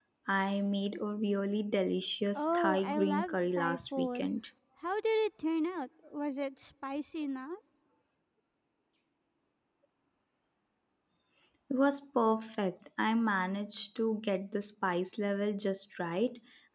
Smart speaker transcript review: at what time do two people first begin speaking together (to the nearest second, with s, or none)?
2 s